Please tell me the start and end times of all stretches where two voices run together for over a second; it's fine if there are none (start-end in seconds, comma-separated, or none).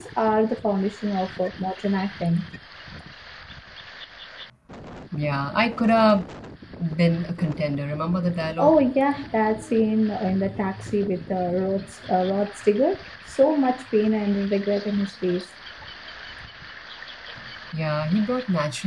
none